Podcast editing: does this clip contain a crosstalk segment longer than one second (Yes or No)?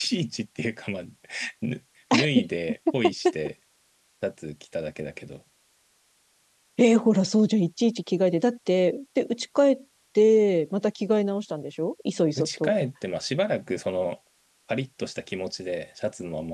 No